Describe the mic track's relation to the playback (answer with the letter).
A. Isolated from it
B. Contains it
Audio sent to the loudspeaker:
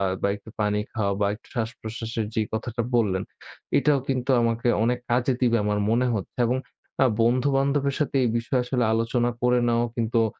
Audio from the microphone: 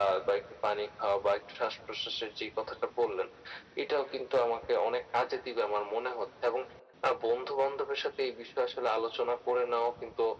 B